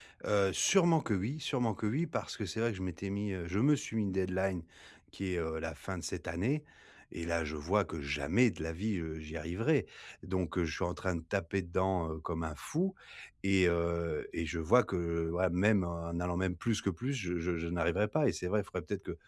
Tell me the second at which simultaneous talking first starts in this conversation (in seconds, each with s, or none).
none